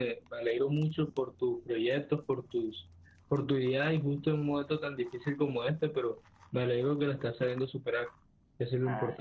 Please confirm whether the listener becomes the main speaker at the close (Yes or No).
Yes